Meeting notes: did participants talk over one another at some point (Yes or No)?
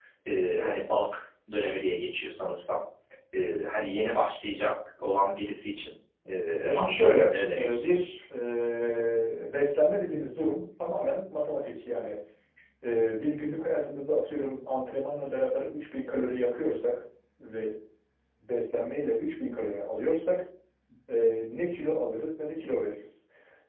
Yes